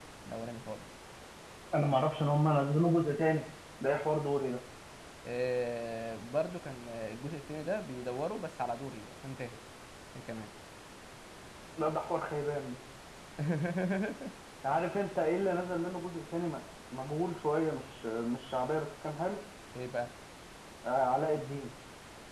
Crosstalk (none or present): none